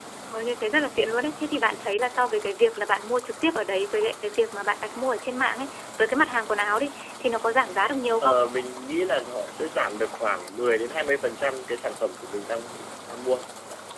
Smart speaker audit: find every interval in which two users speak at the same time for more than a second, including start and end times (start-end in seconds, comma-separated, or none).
none